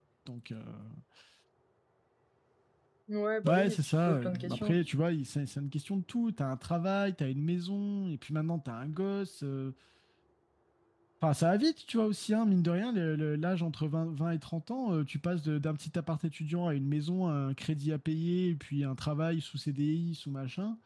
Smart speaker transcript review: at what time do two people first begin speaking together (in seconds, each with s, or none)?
3.5 s